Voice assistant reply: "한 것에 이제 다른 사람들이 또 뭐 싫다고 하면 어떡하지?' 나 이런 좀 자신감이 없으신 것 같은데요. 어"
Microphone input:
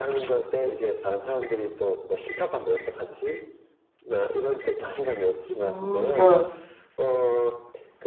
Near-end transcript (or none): 음 네.